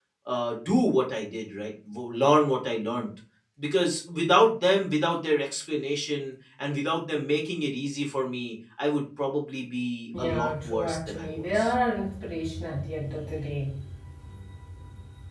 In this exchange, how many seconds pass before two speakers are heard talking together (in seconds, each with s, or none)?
10.1 s